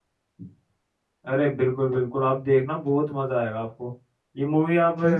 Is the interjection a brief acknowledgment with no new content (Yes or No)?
Yes